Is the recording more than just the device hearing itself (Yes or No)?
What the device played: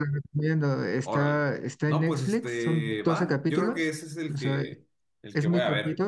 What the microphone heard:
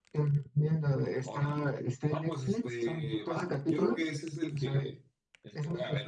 No